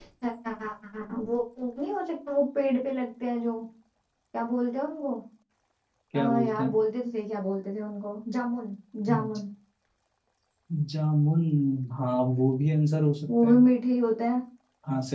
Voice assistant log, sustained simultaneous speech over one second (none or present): none